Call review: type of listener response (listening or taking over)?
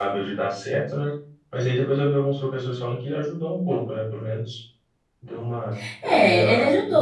taking over